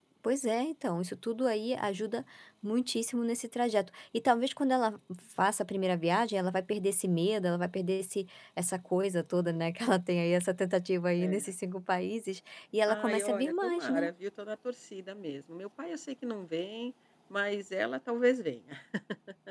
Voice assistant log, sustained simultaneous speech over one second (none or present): present